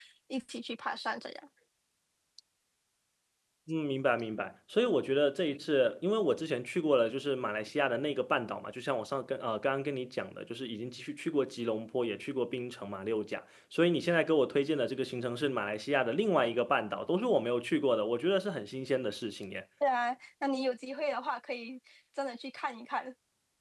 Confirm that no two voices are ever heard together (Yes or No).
Yes